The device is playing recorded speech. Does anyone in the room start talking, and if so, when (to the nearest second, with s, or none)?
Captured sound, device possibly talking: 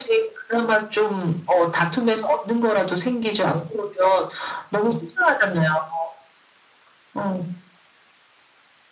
none